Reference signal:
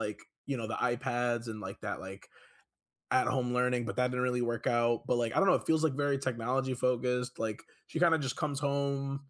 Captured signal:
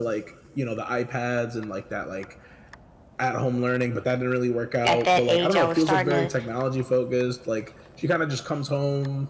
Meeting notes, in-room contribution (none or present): present